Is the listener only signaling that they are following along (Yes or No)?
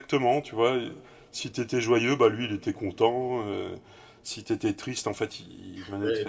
Yes